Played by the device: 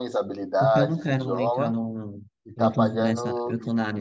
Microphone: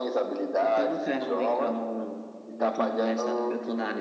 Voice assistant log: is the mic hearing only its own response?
Yes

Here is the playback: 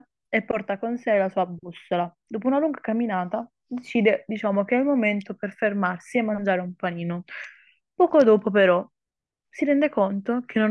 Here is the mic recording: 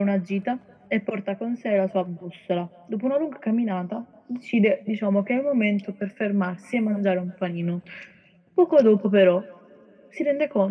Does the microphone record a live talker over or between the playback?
No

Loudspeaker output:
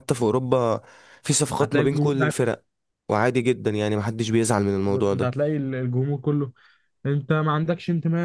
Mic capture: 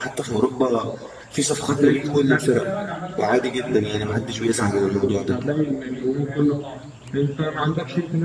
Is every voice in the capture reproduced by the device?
No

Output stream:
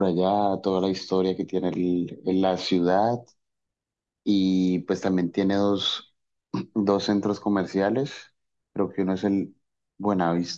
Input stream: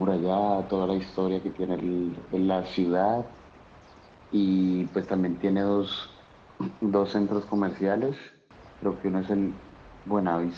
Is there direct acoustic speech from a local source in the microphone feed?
No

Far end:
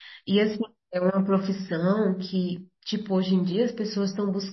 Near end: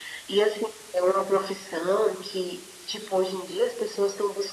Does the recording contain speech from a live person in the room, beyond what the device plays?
No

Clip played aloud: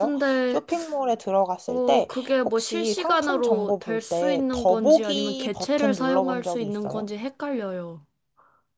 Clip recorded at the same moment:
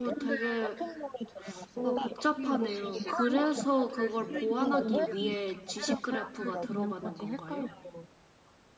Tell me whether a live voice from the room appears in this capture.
Yes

